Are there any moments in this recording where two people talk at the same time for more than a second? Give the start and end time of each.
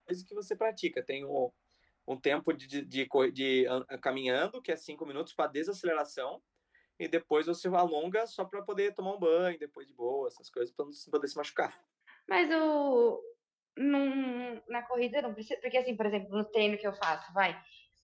none

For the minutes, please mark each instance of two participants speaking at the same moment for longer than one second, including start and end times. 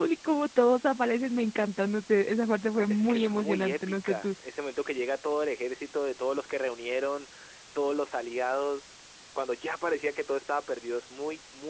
2.9-4.3

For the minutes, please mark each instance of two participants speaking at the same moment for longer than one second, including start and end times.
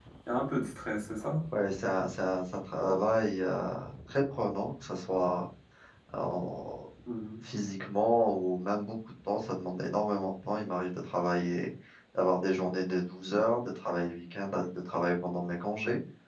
none

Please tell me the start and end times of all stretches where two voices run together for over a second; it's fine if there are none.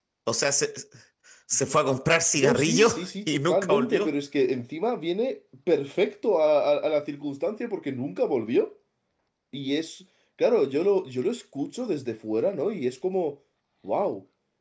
2.4-4.2

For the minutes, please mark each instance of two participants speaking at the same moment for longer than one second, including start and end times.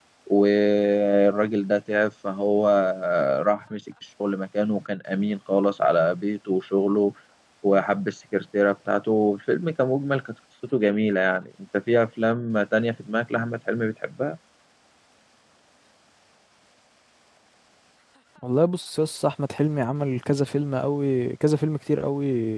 none

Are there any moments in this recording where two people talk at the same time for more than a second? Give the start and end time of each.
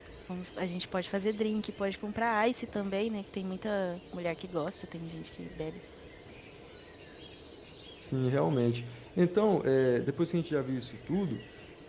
none

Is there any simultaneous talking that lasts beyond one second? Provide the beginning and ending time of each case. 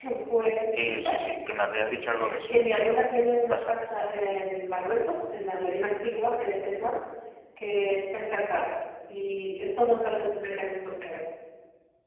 none

